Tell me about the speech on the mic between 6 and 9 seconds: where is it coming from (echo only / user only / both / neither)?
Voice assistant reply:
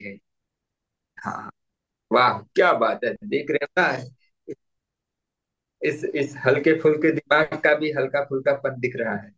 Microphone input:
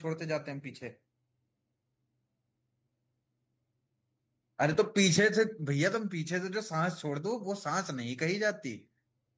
user only